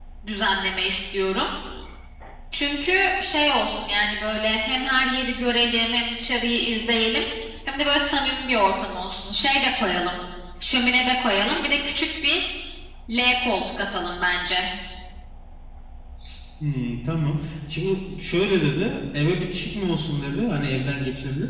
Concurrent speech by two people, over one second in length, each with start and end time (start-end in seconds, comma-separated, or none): none